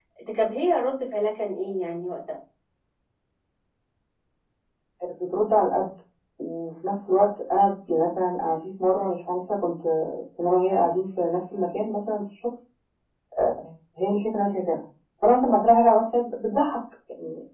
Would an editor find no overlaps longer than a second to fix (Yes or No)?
Yes